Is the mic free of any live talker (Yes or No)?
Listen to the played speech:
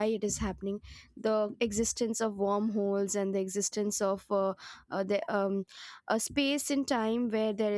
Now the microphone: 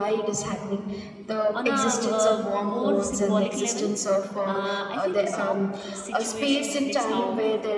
No